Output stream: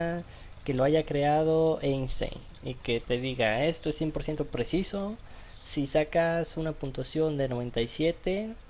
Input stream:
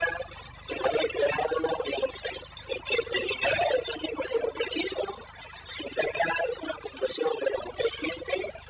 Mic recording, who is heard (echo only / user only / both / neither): echo only